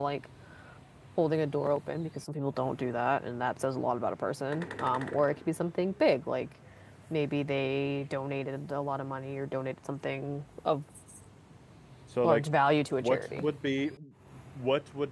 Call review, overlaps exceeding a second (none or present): none